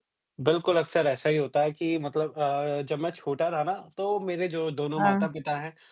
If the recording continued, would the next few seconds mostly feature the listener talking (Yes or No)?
No